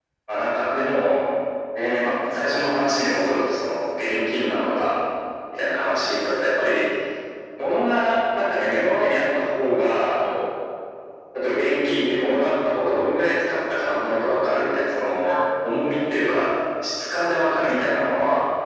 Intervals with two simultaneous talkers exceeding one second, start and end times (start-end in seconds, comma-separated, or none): none